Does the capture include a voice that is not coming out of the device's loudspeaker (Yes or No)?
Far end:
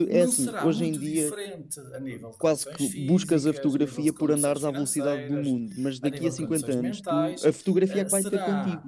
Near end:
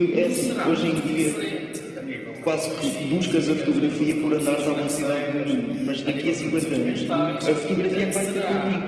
No